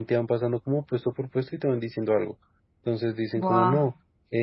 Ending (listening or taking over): listening